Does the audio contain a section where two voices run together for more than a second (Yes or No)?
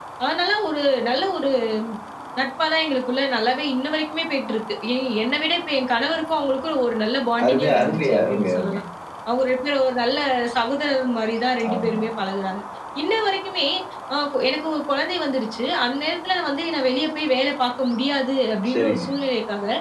Yes